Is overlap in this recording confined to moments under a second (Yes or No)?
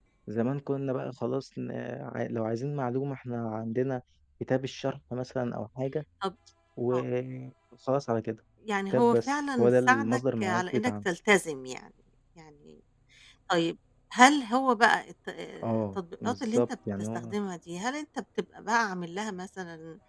No